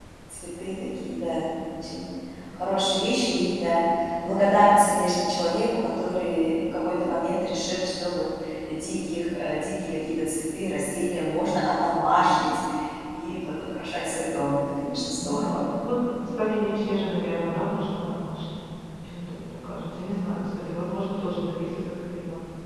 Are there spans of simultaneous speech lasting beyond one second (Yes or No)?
No